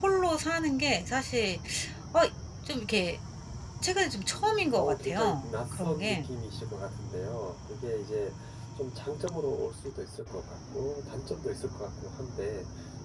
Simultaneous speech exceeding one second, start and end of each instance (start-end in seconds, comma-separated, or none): 4.3-6.3